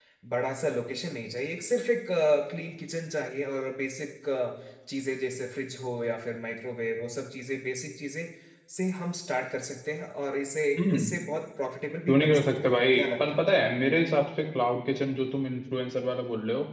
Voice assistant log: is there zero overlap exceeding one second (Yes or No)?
No